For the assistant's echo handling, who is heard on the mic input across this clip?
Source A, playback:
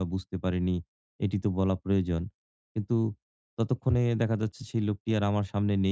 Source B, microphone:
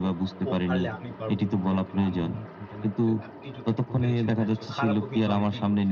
both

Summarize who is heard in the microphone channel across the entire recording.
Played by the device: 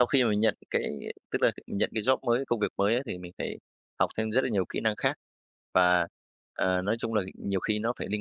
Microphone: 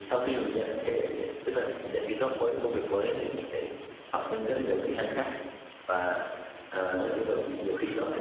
echo only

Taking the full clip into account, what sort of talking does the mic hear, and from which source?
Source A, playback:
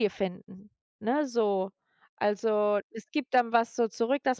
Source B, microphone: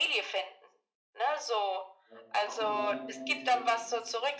both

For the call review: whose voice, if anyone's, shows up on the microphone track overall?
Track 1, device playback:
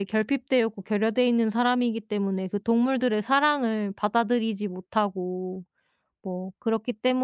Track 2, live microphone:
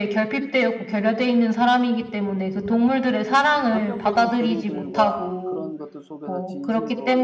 both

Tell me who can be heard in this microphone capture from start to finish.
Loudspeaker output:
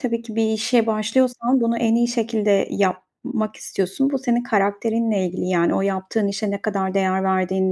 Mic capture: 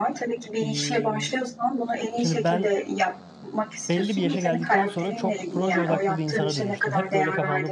both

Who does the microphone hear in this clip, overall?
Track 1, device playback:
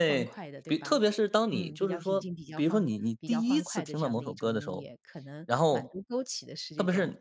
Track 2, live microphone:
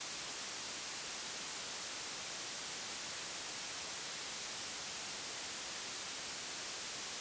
neither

